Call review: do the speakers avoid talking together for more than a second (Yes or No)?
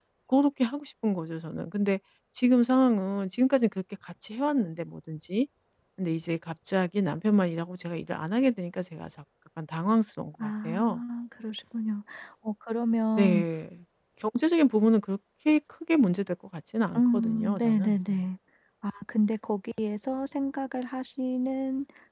No